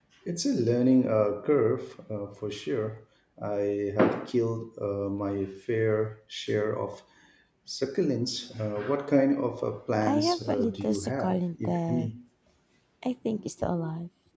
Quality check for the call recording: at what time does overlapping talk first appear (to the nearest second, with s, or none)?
10 s